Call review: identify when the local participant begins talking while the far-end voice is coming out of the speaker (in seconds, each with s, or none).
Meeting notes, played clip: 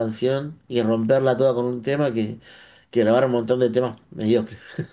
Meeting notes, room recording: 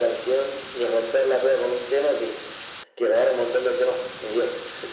none